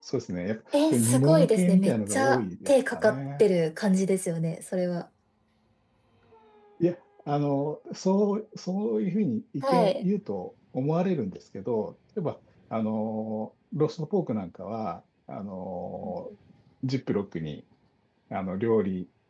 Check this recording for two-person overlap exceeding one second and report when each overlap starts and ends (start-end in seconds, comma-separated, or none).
0.7-3.4